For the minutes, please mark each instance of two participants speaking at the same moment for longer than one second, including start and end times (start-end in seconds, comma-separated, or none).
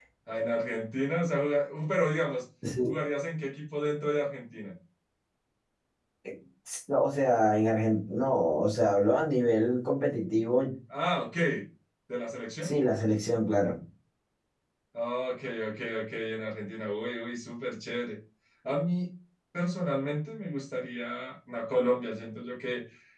none